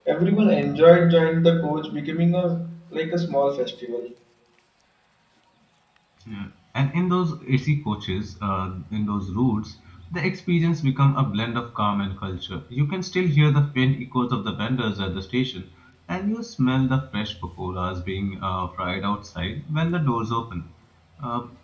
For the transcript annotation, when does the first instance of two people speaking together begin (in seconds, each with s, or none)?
none